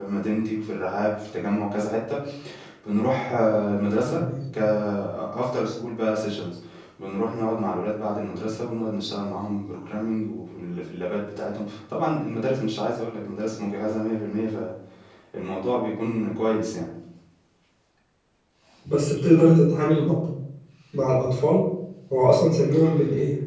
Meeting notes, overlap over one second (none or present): none